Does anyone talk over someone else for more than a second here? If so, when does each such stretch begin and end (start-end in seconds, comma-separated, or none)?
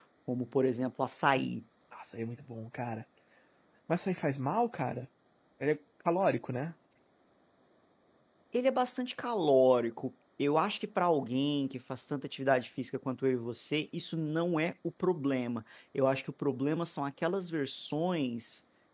none